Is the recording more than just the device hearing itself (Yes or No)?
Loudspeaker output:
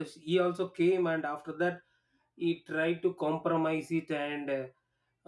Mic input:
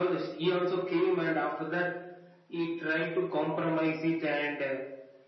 No